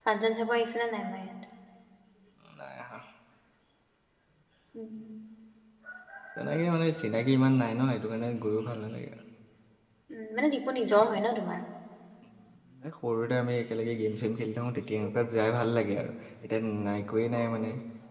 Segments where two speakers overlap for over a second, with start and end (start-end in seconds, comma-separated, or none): none